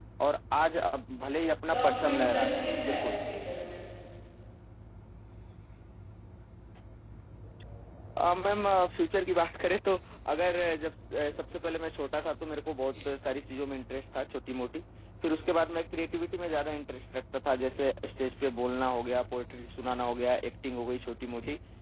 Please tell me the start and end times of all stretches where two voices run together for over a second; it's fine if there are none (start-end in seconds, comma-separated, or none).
1.7-3.1